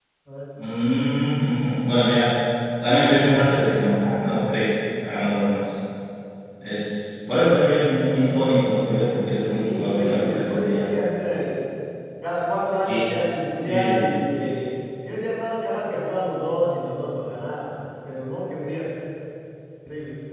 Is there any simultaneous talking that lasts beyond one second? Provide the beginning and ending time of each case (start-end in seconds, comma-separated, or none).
9.6-10.9